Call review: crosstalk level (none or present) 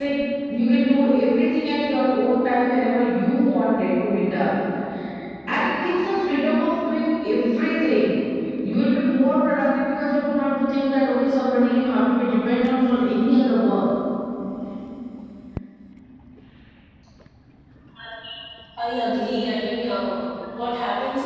none